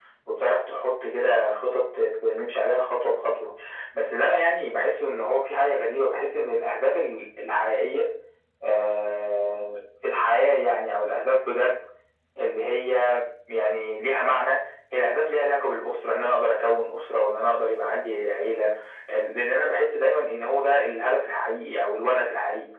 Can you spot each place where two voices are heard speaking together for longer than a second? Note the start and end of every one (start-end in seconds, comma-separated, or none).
none